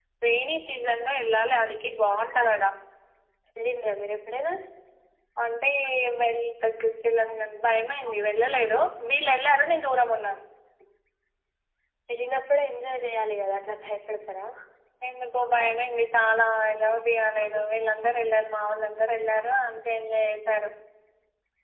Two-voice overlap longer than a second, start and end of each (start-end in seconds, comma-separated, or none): none